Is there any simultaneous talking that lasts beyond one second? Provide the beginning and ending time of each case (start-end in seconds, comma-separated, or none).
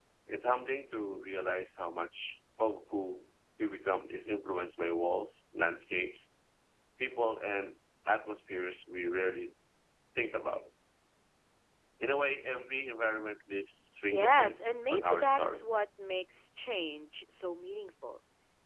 14.1-15.7